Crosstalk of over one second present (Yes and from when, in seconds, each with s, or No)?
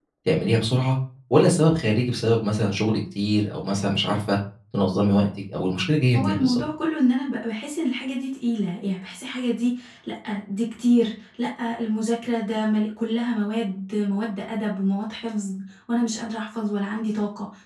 No